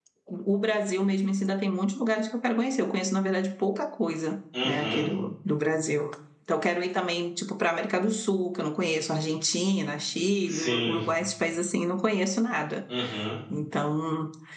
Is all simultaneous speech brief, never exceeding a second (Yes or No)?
Yes